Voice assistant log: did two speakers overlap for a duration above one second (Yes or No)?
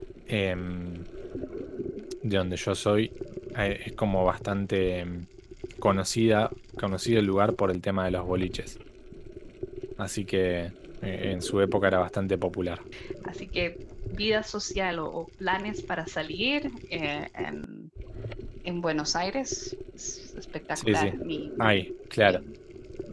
No